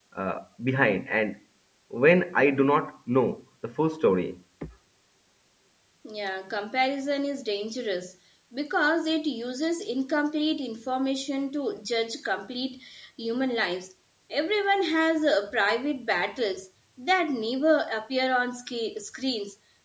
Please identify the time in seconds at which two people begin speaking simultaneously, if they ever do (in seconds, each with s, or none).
none